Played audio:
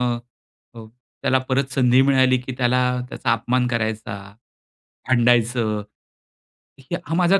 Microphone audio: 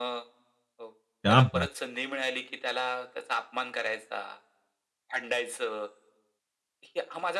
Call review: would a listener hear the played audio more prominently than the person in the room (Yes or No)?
No